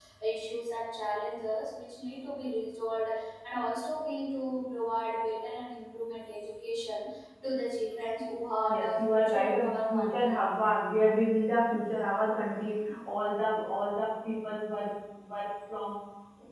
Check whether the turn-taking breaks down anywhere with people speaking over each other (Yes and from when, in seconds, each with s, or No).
Yes, from 8.7 s